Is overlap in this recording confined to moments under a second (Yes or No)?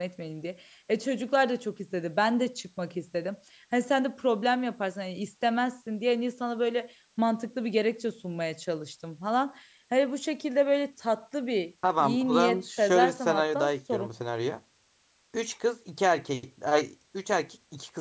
No